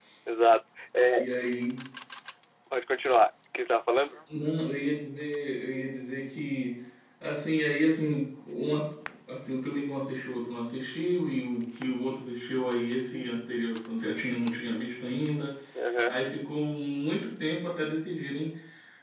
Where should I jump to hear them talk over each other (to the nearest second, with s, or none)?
none